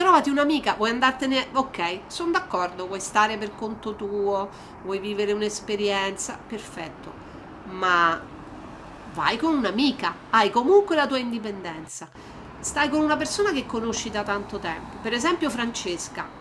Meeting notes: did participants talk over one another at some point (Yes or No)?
No